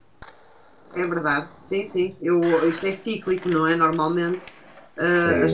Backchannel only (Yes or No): No